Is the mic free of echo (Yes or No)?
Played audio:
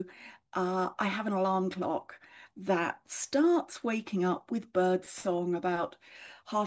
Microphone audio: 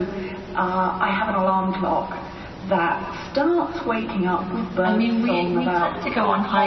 No